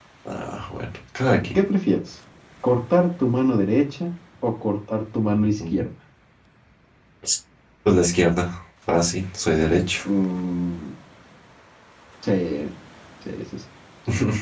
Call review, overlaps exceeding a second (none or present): none